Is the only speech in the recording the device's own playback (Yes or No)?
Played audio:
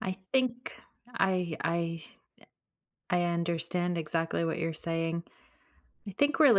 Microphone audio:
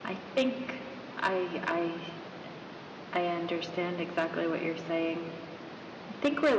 Yes